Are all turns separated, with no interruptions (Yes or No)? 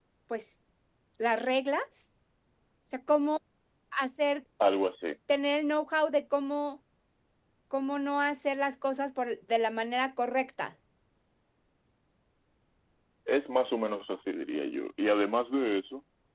Yes